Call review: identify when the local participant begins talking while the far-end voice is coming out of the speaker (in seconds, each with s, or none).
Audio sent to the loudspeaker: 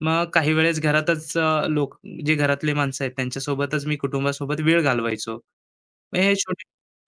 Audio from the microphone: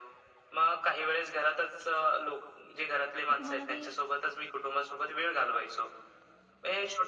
3.3 s